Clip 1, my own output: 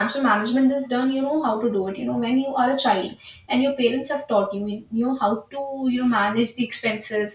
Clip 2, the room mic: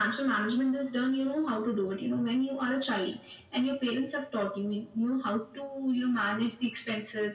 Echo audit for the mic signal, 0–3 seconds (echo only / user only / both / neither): echo only